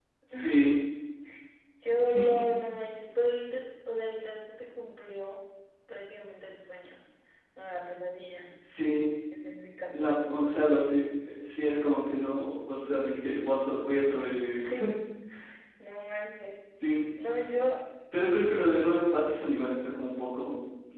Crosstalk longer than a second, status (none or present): none